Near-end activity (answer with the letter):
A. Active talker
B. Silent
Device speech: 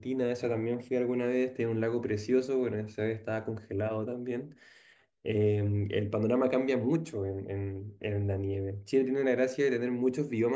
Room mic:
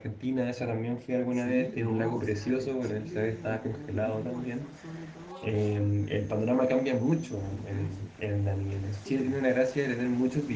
A